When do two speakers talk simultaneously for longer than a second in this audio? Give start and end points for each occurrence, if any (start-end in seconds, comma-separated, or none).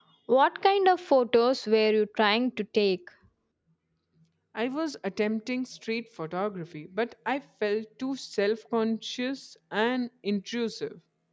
none